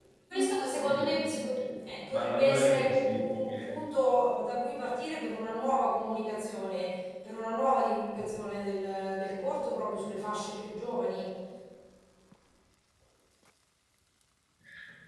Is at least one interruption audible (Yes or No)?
Yes